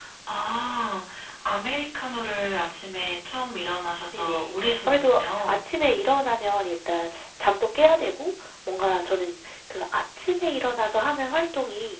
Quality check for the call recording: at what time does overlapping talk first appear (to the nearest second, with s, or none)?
4 s